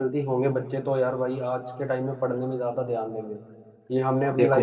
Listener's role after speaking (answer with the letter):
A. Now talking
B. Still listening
B